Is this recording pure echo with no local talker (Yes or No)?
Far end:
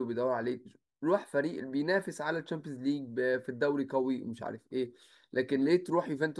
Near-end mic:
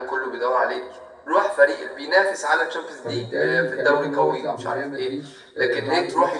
No